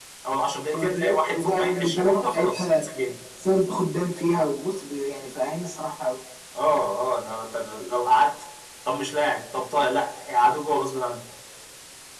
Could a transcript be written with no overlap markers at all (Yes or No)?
No